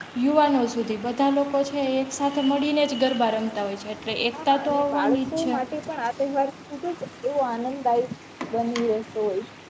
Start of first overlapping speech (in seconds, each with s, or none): 4.3 s